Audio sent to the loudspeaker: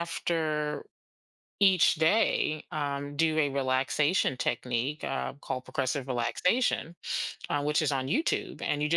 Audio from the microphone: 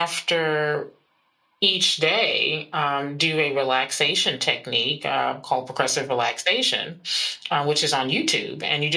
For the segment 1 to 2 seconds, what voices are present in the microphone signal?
echo only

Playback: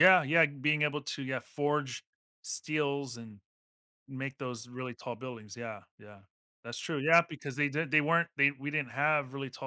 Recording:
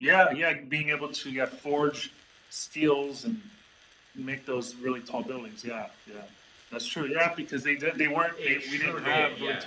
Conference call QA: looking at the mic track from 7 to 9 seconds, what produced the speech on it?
both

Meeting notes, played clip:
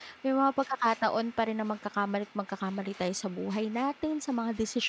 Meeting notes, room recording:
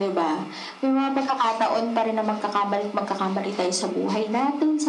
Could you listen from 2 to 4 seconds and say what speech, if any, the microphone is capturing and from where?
echo only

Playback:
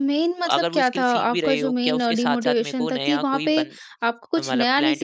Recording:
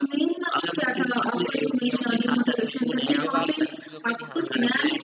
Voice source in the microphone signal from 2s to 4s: both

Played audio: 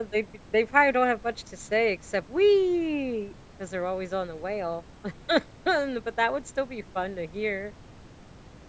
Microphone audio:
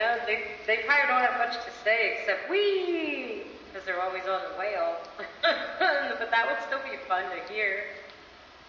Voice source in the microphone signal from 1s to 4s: echo only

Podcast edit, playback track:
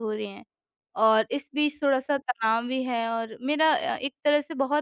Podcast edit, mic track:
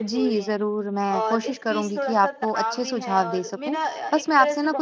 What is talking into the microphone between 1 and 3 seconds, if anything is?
both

